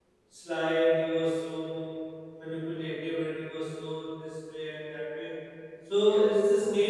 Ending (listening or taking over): listening